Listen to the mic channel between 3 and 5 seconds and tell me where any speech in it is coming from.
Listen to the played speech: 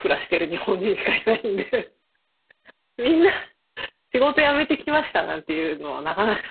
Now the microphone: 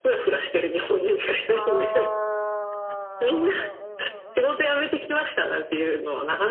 both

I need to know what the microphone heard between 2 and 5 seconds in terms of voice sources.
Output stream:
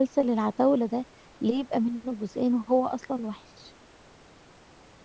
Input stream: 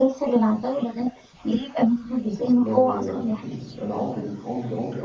both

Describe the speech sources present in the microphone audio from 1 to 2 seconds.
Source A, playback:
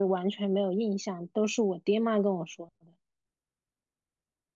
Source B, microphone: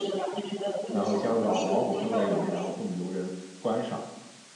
both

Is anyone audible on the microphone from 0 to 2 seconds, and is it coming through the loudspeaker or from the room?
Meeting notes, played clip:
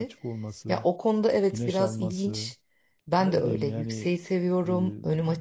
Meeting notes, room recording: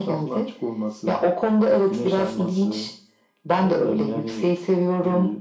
echo only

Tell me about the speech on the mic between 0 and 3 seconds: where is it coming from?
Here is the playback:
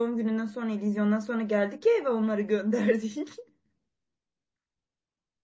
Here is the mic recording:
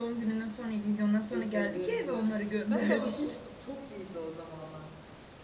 both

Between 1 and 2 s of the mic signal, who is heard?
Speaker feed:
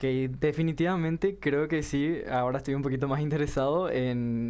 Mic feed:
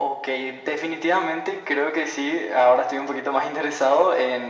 echo only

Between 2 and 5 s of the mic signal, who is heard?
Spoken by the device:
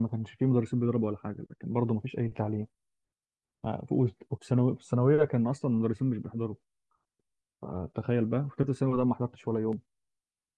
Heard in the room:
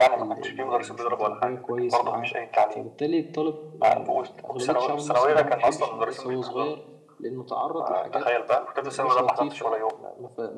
both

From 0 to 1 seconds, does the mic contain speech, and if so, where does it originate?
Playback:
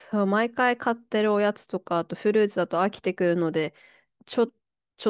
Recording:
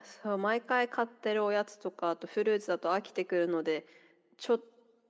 echo only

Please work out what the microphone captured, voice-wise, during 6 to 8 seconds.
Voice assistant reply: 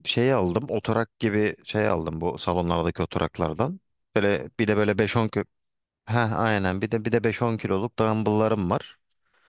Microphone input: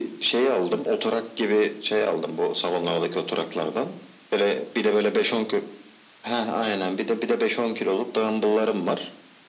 echo only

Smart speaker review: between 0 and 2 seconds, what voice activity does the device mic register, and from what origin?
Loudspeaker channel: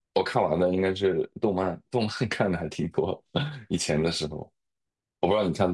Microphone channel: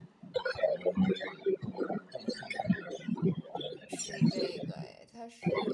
echo only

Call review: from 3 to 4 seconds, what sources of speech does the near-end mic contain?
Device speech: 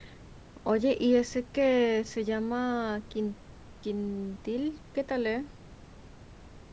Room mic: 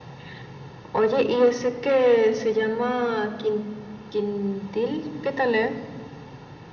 echo only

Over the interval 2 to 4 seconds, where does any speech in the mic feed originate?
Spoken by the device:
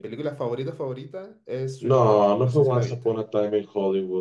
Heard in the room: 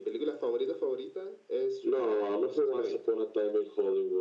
echo only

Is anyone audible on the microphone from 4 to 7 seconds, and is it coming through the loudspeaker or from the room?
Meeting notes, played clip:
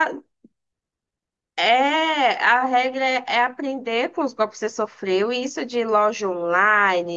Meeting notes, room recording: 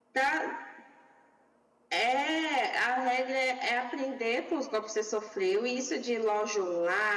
echo only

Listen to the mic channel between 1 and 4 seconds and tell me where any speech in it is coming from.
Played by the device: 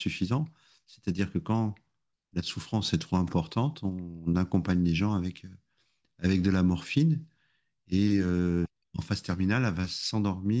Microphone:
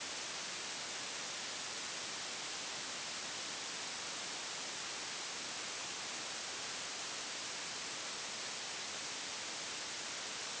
neither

